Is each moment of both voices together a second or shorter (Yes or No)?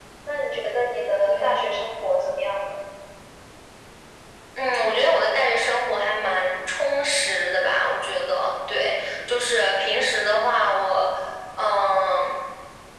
Yes